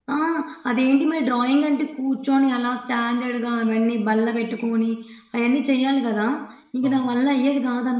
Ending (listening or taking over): listening